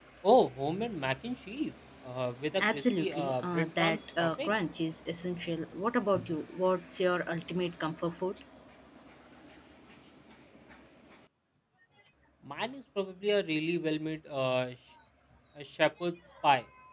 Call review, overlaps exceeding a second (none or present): present